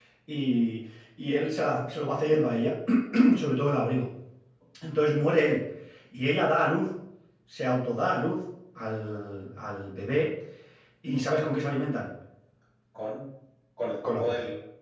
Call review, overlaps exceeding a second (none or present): none